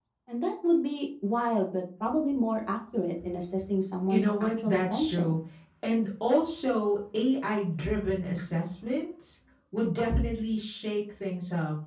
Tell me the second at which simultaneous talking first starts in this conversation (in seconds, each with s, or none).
4.1 s